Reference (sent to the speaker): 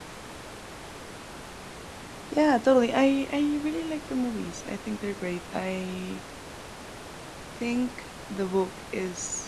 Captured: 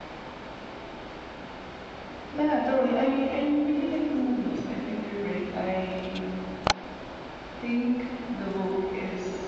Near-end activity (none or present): none